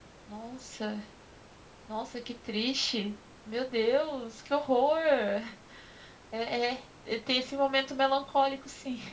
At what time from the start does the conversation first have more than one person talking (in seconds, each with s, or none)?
none